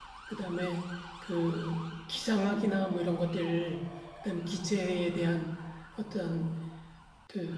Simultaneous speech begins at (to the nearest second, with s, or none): none